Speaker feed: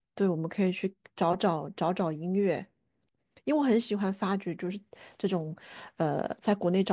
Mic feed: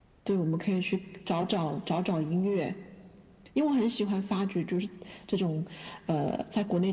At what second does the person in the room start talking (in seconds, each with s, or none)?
none